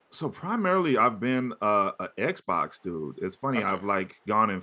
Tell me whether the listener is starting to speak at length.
No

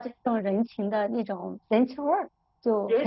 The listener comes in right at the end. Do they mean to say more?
Yes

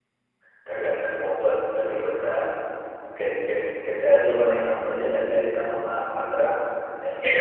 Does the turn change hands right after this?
Yes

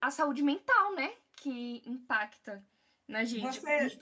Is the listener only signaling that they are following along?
Yes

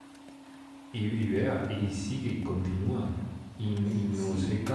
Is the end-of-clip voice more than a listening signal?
No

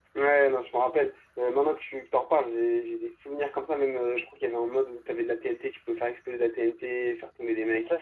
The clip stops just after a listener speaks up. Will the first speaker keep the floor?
No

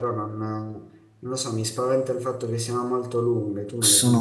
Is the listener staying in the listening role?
No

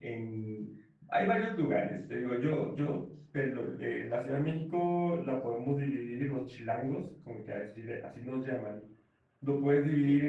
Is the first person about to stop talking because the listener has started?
No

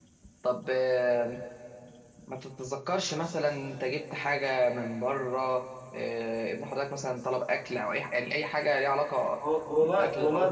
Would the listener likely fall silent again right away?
No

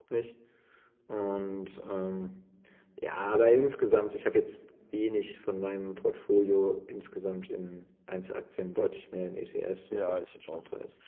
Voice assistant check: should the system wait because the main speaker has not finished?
No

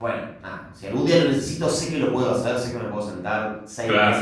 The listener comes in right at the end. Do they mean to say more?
No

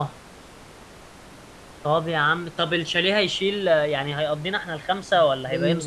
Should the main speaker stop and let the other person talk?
Yes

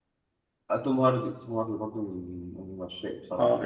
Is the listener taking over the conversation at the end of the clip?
Yes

